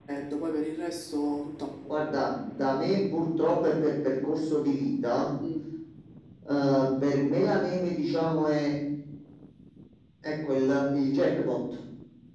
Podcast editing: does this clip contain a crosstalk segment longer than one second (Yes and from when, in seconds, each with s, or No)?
No